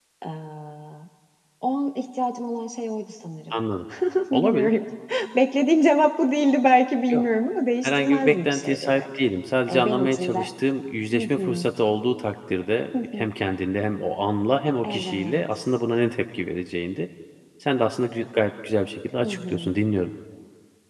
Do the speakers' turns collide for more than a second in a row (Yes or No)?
Yes